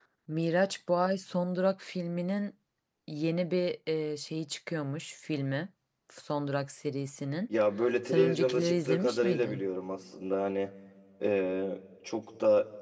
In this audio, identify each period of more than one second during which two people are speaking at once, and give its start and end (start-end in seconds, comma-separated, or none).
8.1-9.6